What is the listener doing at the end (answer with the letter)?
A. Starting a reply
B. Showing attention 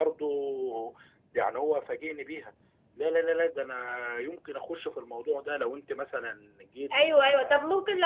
A